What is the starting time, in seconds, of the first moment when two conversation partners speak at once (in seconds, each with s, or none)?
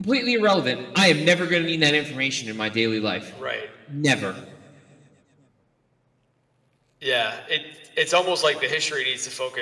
none